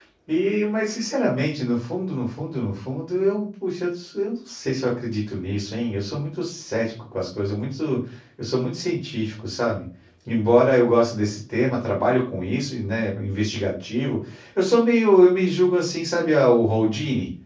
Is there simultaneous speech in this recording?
No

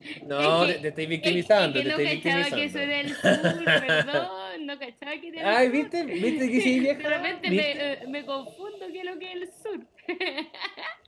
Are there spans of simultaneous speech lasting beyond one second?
Yes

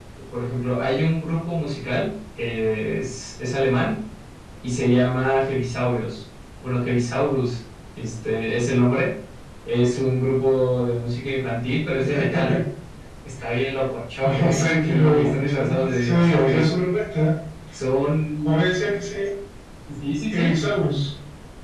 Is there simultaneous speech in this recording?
Yes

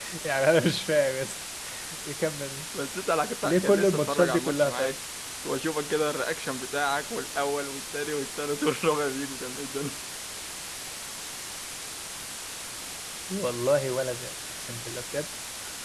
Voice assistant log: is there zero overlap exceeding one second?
No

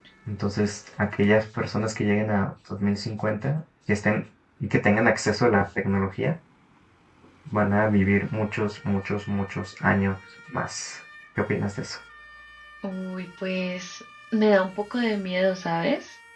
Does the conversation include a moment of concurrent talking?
No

